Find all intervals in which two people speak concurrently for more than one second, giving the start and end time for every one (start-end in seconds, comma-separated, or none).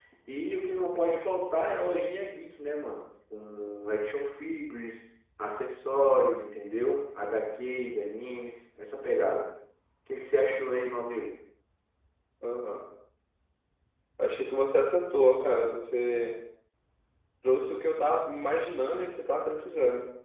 none